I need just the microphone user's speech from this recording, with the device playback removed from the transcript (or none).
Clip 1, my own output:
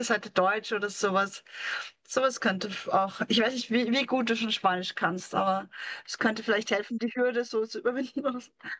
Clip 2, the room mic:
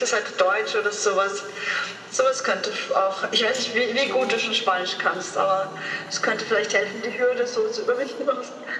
ja,